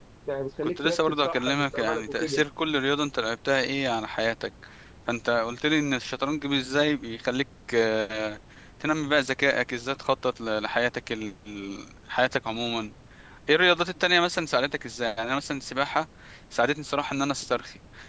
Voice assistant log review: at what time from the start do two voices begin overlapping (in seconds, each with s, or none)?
0.6 s